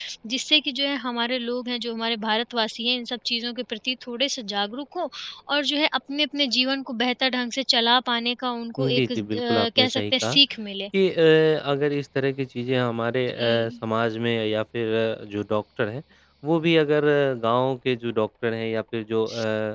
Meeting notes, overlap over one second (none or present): present